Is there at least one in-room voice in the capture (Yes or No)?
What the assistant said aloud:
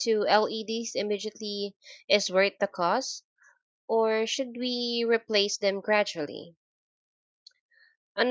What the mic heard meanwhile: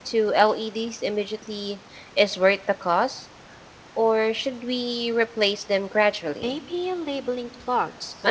Yes